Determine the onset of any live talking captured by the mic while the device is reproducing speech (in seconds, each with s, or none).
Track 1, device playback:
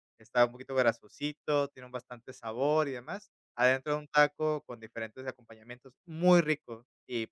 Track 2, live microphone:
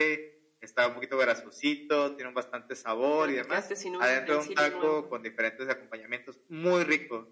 3.2 s